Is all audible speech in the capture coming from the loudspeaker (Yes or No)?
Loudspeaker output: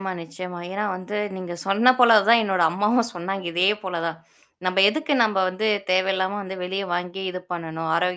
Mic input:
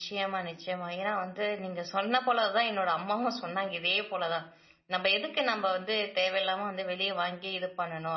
Yes